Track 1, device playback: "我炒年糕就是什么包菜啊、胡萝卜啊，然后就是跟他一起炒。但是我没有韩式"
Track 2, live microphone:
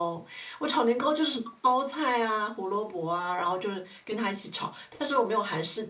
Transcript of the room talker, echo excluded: none

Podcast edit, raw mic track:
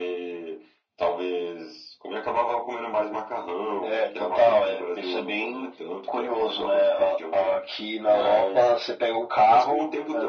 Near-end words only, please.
none

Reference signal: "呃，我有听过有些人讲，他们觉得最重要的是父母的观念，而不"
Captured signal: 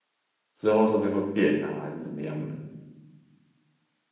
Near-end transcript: 之后说不定会变啊，还是怎么样的。

